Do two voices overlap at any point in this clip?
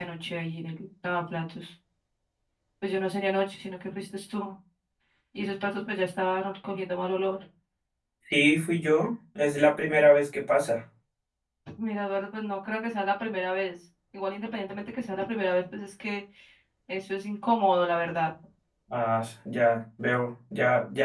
No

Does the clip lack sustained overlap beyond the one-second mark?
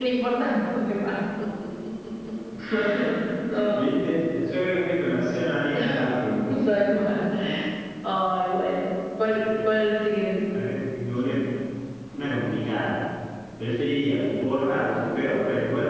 Yes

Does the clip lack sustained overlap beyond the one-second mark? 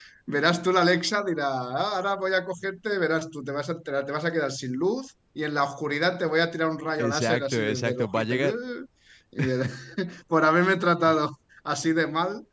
No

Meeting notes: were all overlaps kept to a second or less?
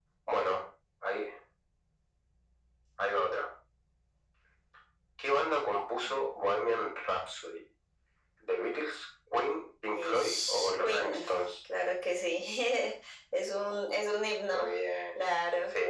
No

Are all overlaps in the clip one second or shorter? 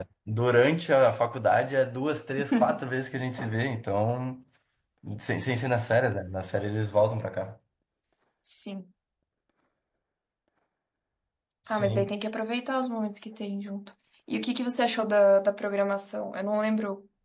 Yes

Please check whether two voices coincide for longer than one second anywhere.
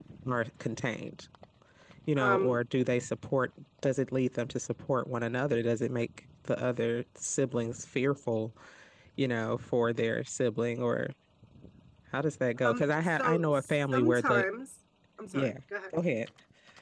Yes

